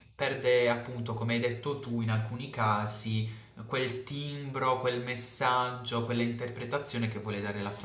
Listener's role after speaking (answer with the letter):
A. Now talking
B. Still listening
A